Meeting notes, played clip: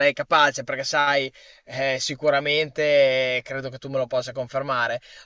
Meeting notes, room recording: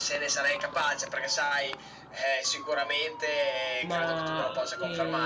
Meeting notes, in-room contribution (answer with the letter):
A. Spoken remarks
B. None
A